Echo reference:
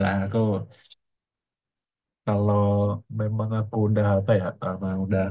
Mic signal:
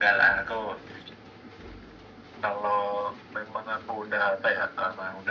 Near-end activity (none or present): none